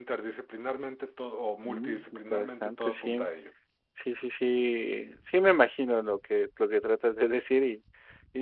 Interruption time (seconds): 1.6 s

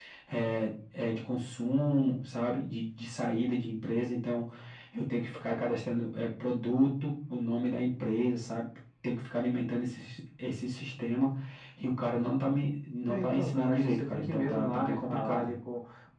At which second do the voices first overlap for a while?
13.1 s

